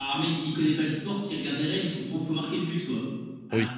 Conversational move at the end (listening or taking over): listening